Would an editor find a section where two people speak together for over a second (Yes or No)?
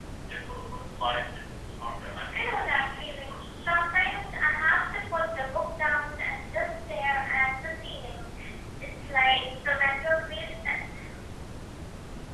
Yes